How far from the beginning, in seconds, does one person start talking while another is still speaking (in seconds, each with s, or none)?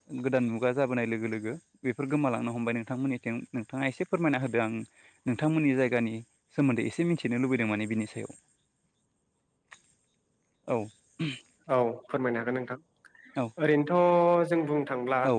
none